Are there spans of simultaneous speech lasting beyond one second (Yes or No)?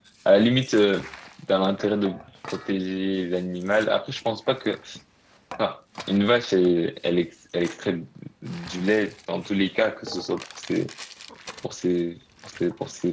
No